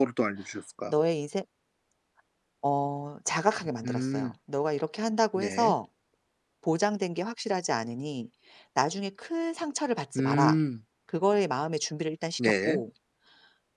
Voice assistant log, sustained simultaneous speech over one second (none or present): none